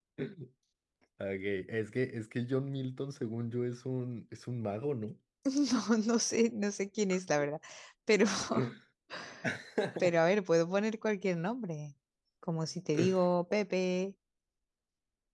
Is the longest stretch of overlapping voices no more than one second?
Yes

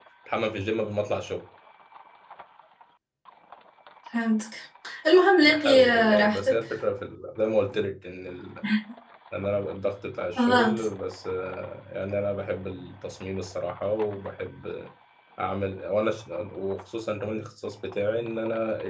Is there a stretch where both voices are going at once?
Yes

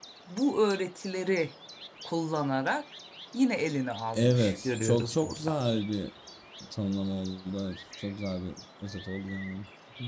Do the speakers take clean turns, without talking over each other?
No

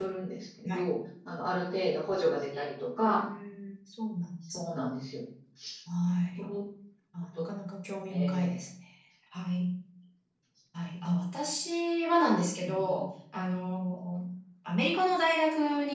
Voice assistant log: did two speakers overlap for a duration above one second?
No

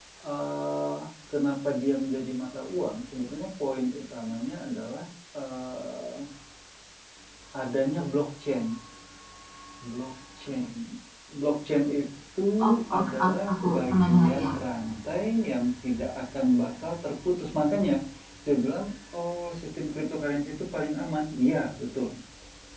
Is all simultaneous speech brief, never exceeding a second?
No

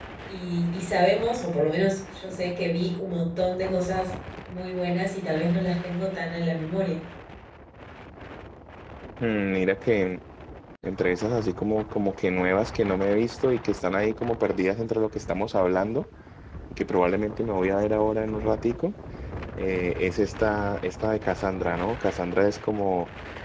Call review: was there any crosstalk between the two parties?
No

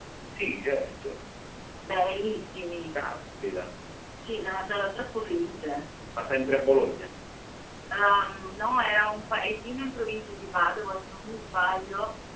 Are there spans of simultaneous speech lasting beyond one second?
No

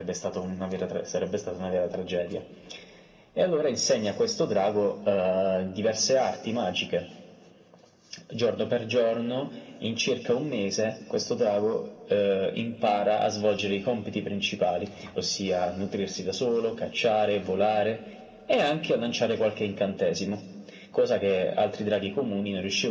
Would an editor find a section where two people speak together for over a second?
No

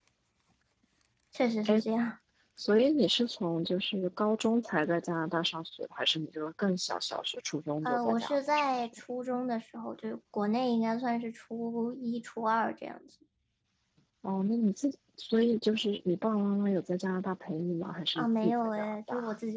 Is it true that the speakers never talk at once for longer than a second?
No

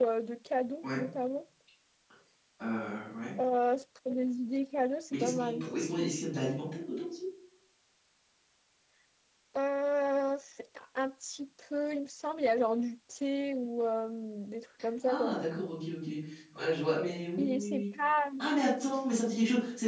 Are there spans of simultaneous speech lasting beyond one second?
No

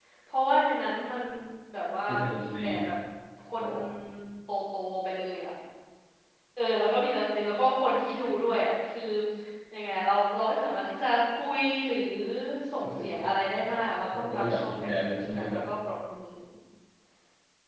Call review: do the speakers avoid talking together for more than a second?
No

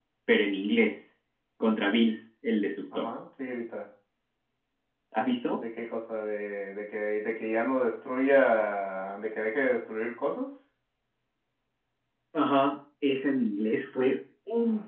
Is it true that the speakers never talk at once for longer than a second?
Yes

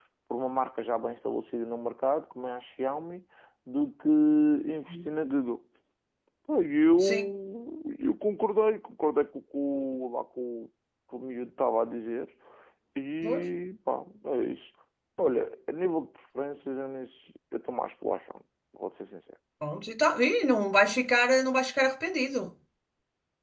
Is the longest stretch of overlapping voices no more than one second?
Yes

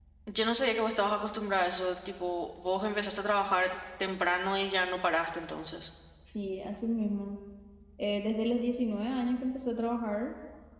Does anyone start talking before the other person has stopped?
No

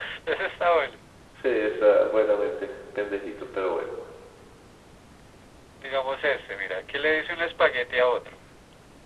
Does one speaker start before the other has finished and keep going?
No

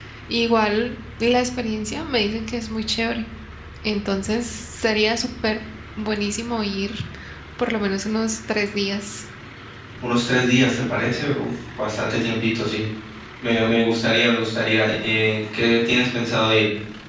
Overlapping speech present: No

